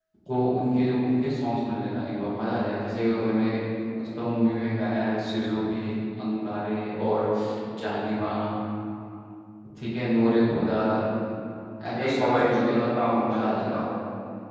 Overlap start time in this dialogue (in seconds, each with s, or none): 11.9 s